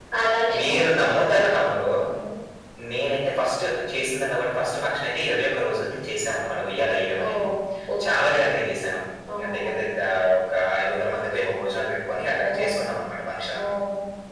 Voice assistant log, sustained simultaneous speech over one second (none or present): none